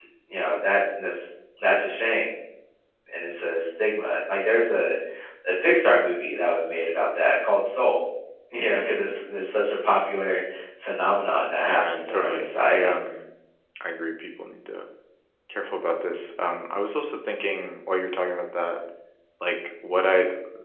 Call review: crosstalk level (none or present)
present